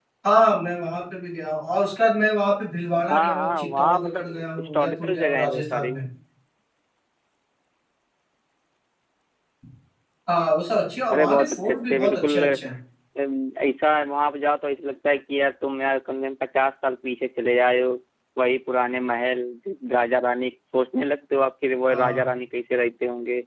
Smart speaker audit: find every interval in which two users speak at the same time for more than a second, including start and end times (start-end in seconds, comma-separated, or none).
3.1-5.9, 11.1-12.4